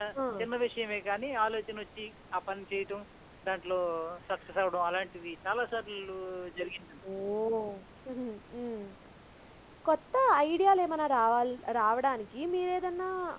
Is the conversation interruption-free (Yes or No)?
Yes